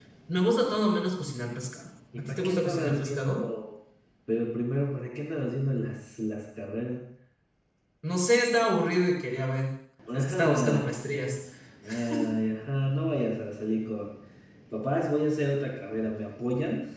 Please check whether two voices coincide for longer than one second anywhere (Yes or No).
Yes